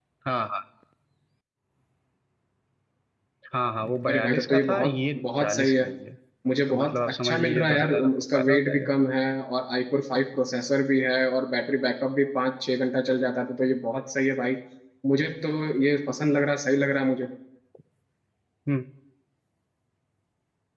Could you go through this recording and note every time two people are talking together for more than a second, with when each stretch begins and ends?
4.1-5.8, 6.7-8.9

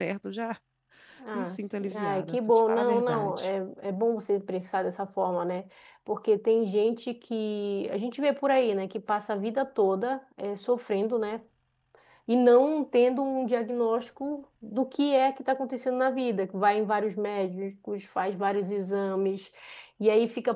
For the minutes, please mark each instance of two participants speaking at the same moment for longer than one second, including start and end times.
1.9-3.5

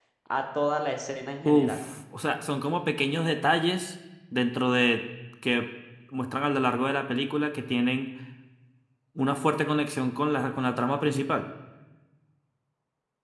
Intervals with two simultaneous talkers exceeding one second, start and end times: none

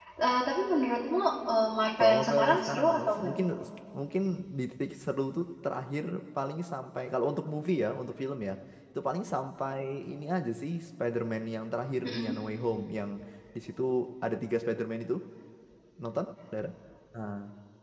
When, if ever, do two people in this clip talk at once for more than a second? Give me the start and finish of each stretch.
2.0-3.3

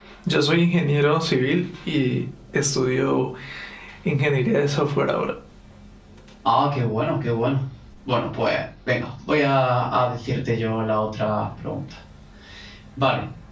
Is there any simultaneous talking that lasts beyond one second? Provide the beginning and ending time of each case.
none

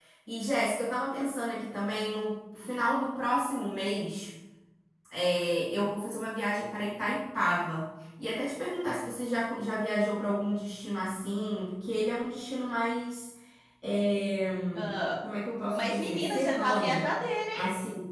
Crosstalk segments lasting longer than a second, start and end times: 15.7-17.0

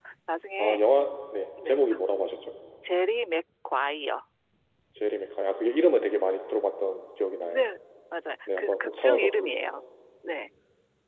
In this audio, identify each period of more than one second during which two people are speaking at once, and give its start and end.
8.6-9.8

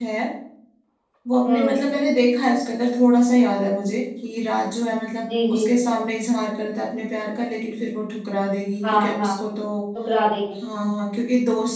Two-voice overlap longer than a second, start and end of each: none

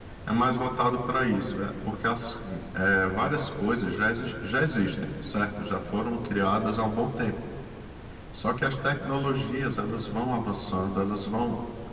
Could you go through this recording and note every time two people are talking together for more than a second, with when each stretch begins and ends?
none

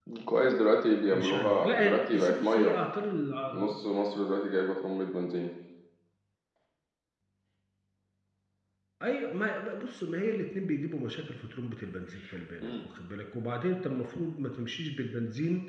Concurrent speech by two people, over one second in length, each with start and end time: 1.1-2.8

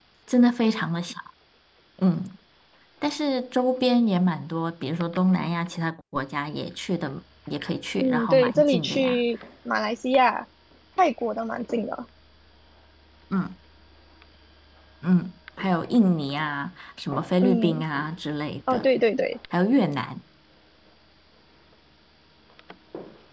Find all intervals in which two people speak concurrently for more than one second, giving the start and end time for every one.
8.0-9.2

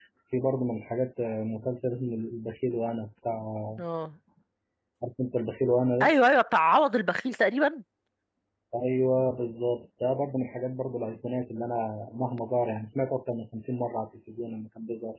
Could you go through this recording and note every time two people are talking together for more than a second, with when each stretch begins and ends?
none

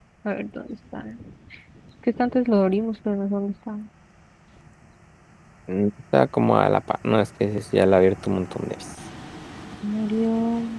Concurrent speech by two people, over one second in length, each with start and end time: none

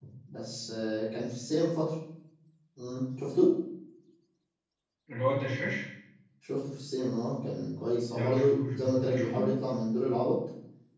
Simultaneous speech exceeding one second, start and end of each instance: 8.1-9.5

